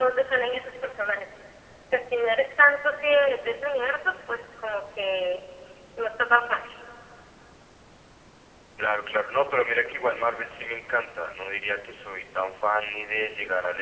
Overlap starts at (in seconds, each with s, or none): none